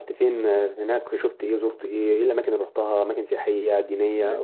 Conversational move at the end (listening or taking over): taking over